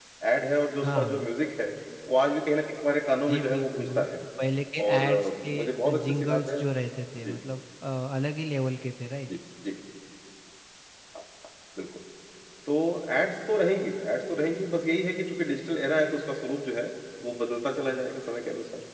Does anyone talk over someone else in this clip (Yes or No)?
Yes